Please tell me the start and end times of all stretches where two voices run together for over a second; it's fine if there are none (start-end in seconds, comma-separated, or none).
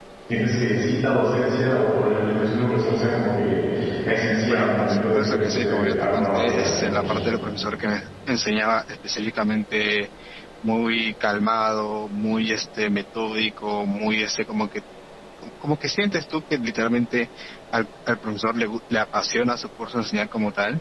4.5-7.2